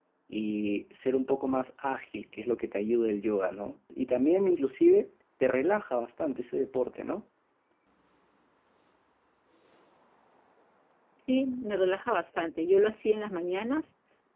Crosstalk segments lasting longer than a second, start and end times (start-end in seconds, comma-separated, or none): none